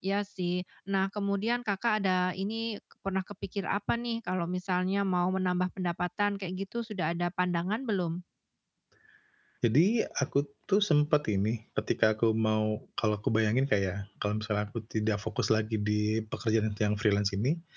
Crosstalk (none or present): none